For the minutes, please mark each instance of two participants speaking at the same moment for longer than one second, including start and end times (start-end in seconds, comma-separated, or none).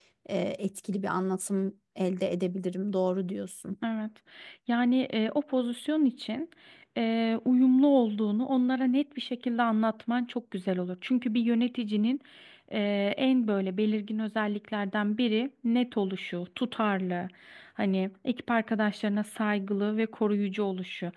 none